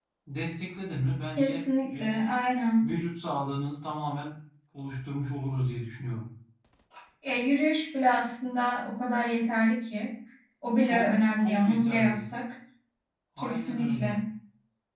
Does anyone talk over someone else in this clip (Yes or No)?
Yes